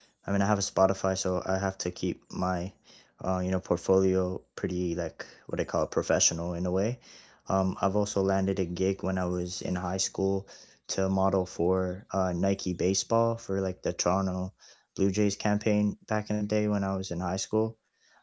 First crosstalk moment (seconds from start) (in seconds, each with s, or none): none